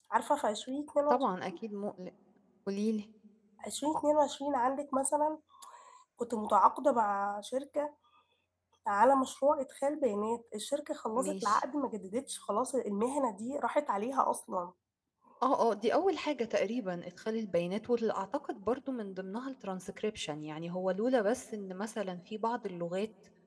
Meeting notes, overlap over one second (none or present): none